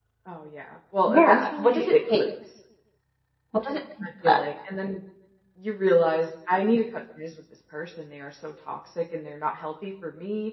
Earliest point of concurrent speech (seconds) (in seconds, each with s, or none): 1.1 s